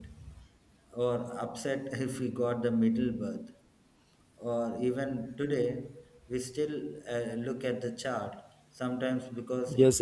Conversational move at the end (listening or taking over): taking over